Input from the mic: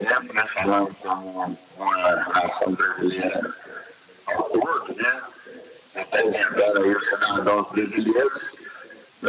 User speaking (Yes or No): No